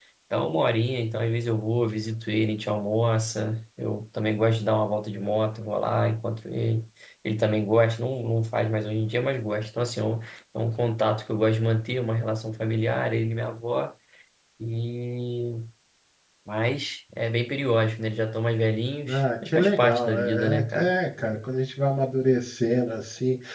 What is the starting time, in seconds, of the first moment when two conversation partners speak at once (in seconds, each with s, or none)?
19.1 s